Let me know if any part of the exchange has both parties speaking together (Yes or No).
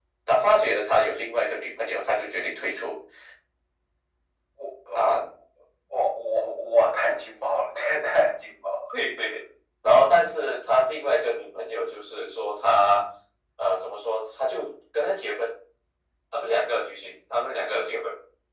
No